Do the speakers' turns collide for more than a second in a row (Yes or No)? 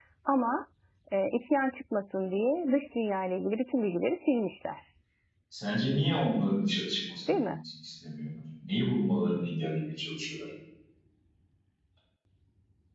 No